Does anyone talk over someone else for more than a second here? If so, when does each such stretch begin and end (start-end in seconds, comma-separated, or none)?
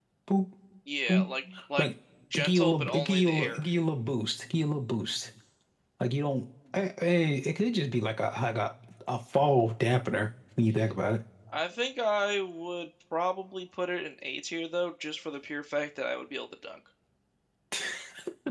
2.3-3.6